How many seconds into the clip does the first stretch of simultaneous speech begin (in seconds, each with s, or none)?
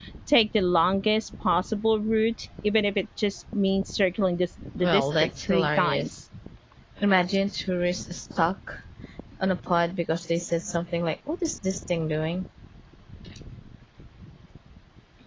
4.8 s